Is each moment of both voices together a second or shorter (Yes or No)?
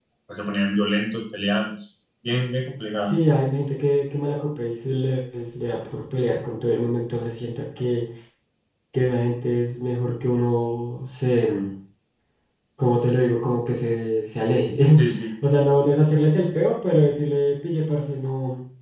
Yes